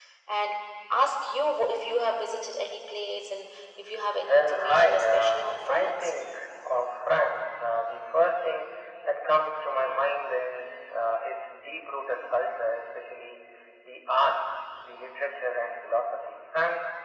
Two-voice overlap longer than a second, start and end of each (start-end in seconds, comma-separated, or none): 4.2-6.1